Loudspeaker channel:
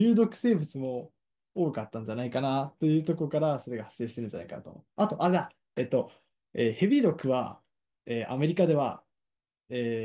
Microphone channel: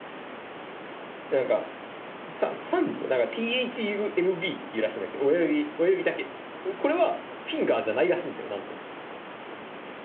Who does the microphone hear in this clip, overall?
user only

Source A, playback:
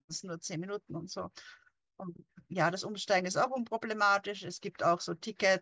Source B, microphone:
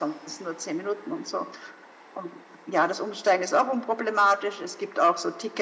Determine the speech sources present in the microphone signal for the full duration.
echo only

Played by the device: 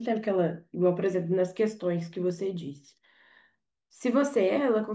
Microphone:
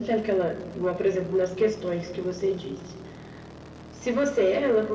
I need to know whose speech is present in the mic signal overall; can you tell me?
echo only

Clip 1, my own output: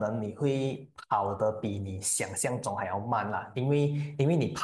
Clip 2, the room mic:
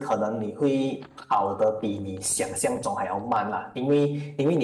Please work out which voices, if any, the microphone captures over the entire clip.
echo only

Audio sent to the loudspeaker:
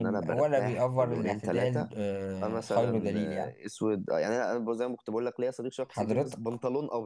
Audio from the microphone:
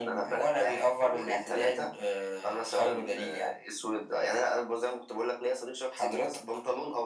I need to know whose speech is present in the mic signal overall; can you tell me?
echo only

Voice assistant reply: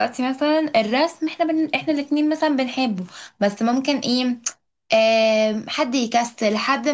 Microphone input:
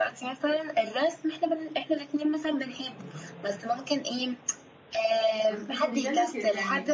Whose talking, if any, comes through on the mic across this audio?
both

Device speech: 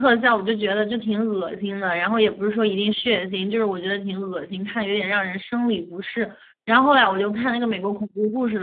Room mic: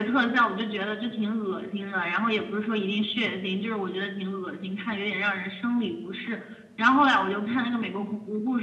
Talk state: echo only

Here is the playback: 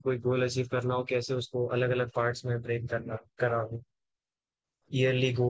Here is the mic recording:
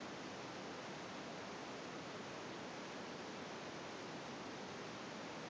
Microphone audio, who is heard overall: neither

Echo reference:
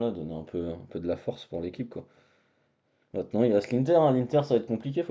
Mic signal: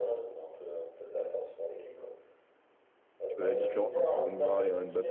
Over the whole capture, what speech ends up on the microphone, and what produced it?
both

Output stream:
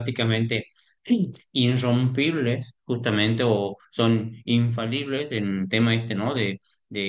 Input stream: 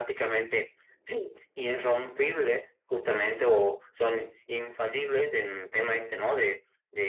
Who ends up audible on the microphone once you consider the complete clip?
echo only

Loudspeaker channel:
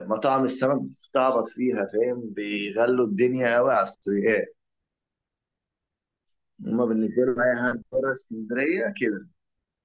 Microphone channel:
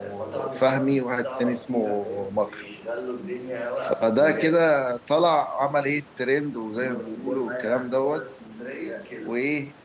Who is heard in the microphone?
both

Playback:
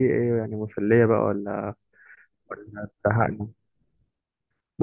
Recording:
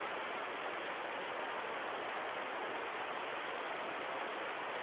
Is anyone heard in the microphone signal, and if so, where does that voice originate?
neither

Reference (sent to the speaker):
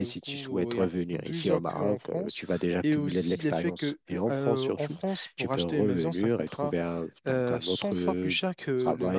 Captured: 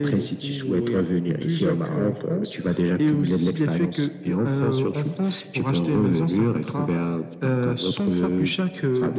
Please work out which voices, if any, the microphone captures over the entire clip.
echo only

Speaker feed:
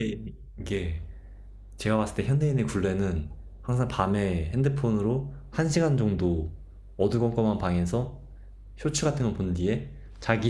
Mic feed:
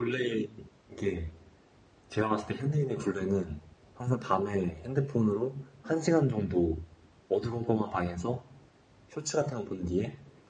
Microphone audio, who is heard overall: echo only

